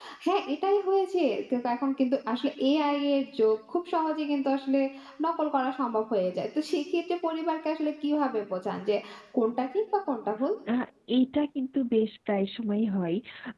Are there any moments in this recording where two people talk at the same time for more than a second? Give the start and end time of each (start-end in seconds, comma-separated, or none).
none